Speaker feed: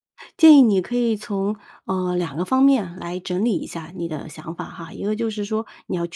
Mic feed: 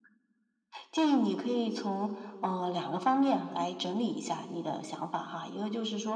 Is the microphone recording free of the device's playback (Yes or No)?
No